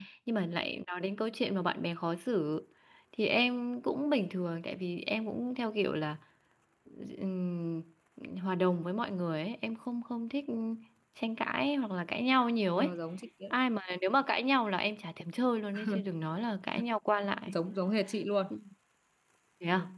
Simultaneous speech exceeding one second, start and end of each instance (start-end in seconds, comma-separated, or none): none